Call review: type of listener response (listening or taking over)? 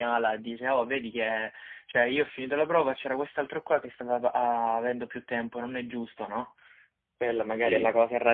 listening